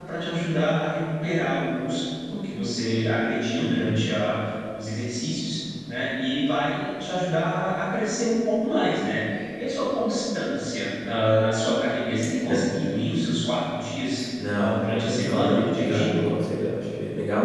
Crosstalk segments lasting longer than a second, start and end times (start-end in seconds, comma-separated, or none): 14.5-16.2